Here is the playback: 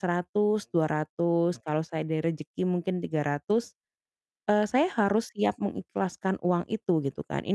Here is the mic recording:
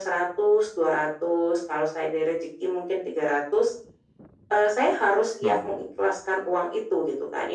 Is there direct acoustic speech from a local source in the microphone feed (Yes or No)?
Yes